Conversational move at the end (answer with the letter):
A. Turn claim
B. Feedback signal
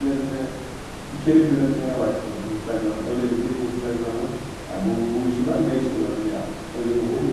B